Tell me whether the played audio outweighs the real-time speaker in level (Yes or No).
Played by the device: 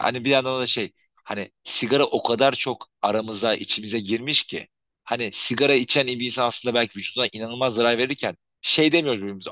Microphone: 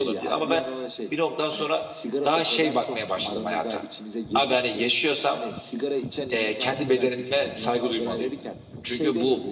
No